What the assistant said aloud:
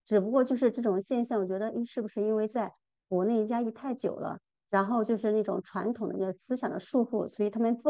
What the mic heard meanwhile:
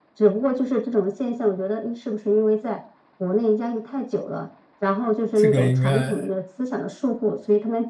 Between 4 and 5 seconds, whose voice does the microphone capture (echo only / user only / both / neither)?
echo only